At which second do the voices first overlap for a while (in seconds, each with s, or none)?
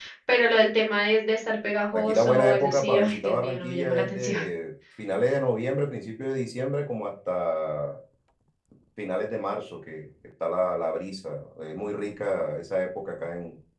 1.9 s